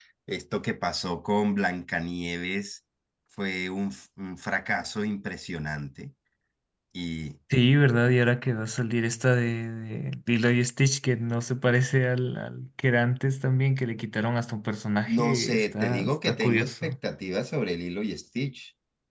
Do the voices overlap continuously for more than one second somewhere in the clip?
Yes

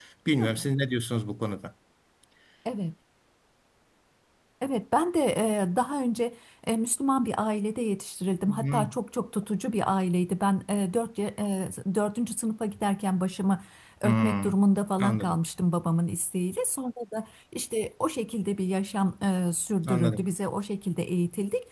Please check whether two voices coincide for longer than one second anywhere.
No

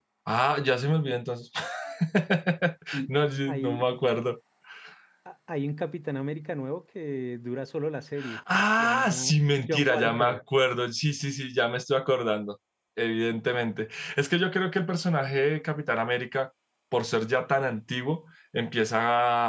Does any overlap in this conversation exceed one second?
Yes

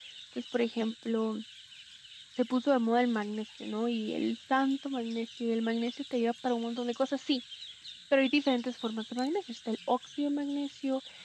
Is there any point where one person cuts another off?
No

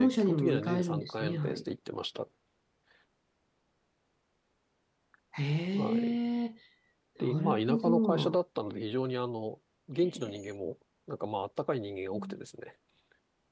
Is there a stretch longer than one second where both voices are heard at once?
Yes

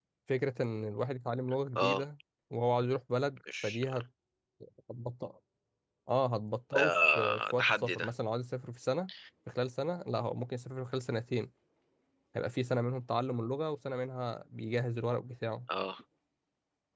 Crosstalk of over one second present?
Yes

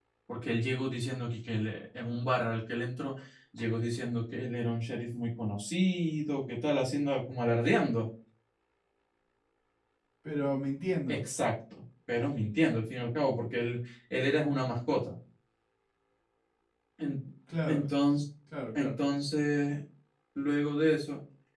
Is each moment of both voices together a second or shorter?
Yes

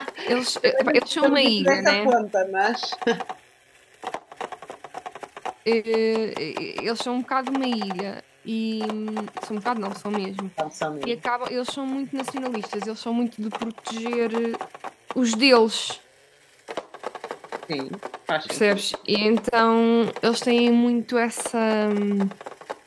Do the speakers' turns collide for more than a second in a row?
Yes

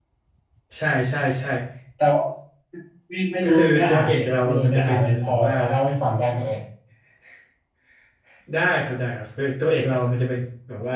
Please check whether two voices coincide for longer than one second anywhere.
Yes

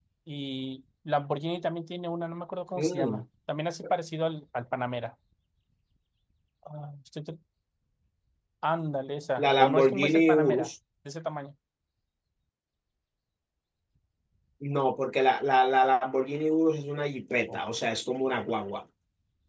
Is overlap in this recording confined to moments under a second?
No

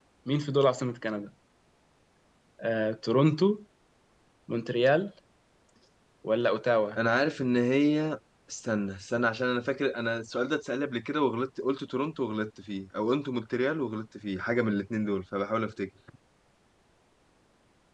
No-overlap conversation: Yes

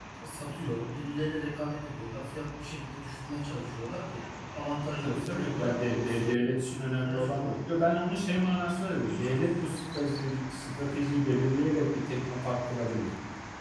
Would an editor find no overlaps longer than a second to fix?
No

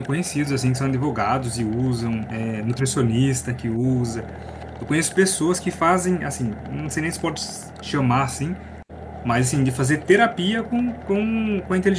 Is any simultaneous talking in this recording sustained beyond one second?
No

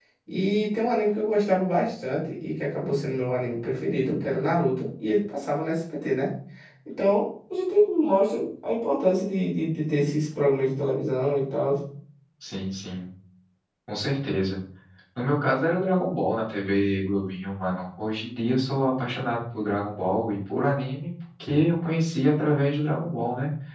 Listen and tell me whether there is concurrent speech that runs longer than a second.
No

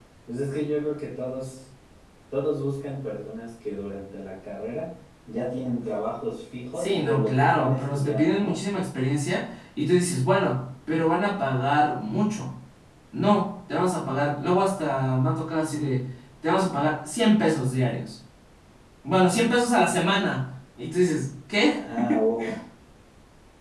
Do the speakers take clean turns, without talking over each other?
No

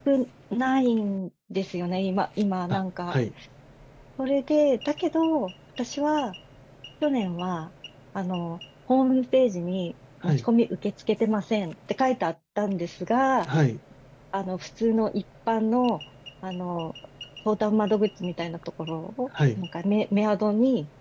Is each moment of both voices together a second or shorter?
Yes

